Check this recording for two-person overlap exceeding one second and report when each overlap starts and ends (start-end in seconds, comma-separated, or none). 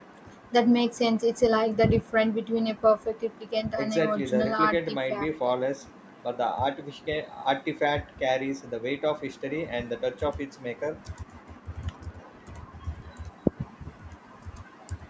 3.8-5.3